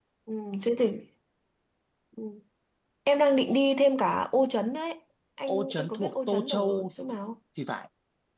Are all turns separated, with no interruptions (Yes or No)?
No